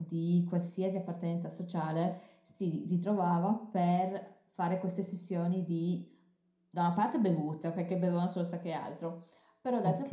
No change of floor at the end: Yes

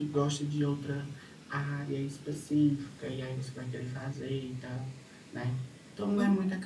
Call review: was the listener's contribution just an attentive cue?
Yes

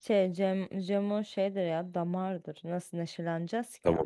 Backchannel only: No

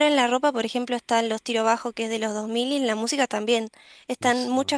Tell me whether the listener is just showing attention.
Yes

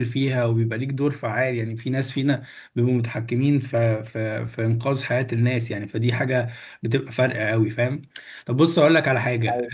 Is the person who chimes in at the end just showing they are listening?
Yes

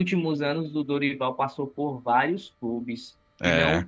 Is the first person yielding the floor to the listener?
No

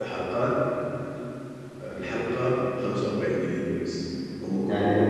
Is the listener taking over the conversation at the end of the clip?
Yes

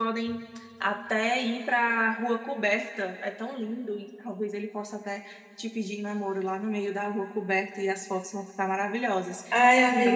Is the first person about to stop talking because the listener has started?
Yes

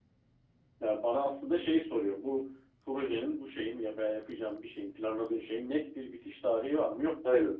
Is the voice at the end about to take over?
Yes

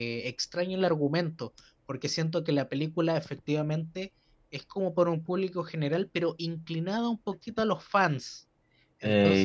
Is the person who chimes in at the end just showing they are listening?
No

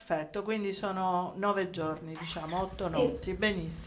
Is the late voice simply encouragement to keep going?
Yes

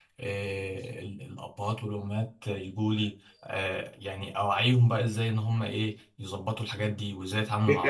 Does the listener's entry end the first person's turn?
Yes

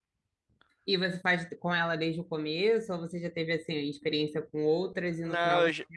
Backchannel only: No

